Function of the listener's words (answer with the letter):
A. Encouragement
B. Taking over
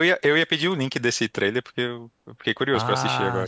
B